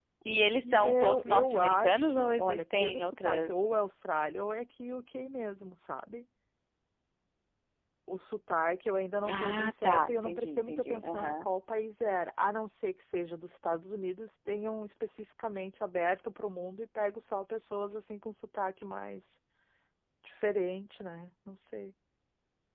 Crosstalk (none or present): present